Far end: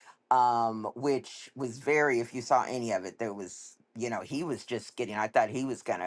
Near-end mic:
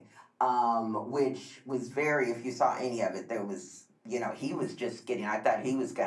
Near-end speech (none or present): none